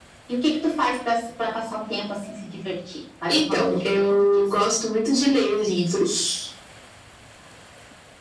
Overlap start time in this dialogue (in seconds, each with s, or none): 3.3 s